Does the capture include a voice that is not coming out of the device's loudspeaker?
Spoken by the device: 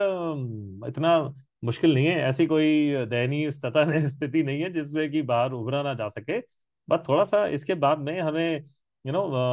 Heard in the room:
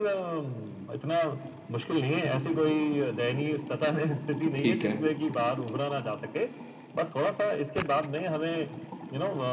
Yes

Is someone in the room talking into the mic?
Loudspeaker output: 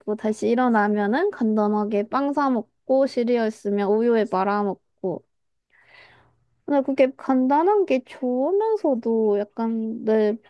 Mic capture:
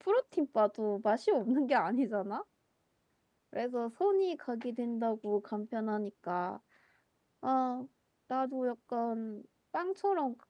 Yes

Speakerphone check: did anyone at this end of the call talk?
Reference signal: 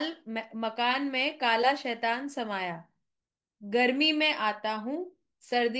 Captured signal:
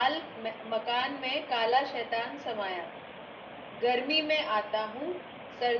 No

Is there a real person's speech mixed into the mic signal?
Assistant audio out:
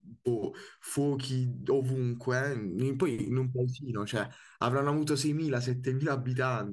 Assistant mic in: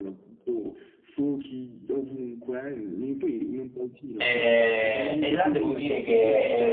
Yes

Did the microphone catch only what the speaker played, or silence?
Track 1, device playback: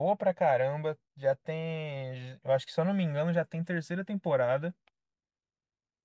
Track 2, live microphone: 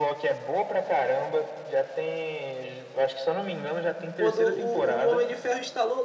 No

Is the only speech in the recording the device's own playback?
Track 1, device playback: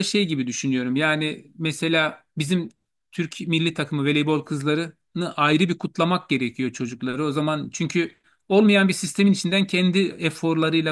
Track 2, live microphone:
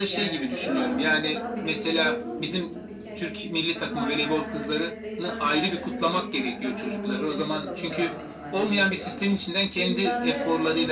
No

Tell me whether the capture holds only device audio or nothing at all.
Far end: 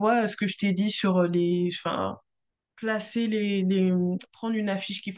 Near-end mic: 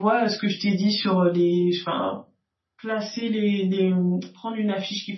Yes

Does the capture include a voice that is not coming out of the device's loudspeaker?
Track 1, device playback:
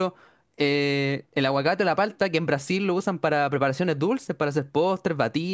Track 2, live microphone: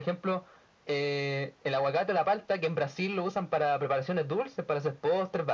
No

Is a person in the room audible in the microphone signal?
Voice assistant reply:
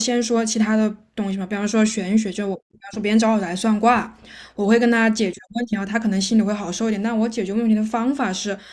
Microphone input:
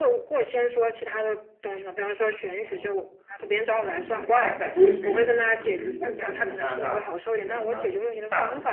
Yes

